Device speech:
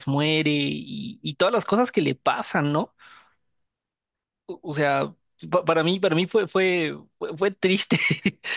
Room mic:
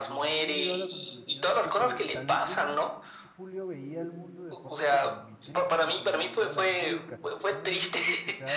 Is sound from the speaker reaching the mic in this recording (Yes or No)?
Yes